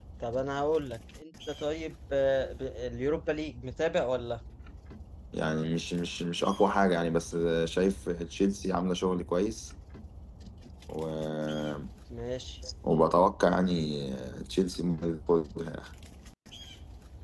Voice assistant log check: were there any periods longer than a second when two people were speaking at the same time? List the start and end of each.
none

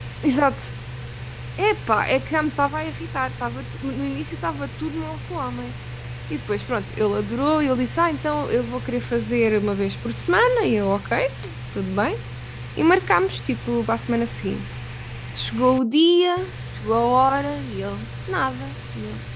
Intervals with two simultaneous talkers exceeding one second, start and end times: none

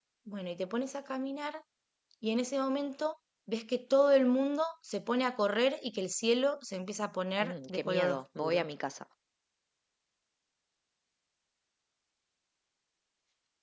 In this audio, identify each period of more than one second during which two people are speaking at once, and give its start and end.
7.4-8.6

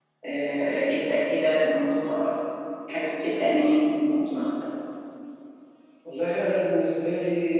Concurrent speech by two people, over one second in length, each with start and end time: none

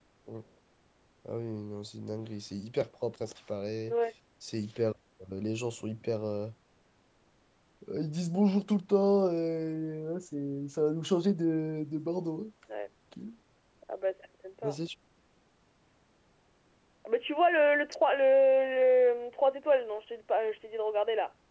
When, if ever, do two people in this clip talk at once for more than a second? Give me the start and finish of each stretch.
none

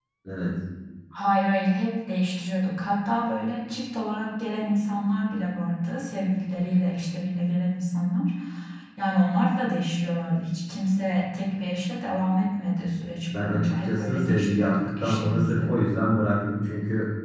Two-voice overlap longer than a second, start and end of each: 13.4-15.7

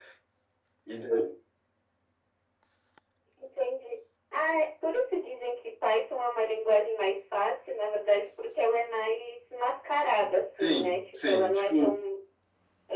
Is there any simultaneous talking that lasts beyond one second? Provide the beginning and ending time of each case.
10.6-12.0

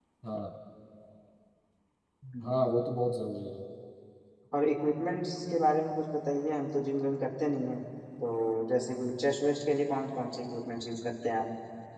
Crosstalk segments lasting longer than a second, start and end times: none

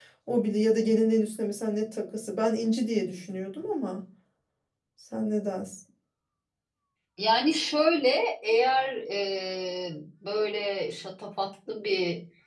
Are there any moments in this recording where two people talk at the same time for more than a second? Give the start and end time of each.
none

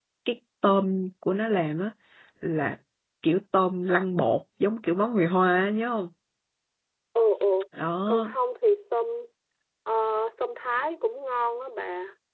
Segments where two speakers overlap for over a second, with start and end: none

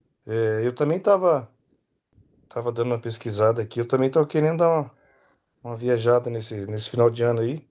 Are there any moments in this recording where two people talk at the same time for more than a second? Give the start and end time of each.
none

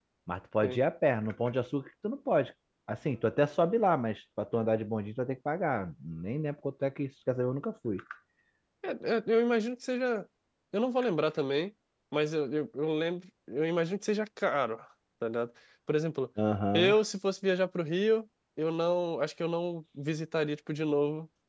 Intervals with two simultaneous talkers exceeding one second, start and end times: none

